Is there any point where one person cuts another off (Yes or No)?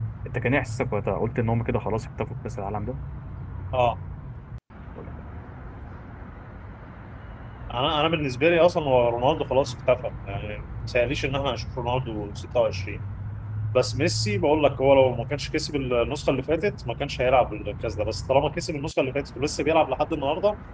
No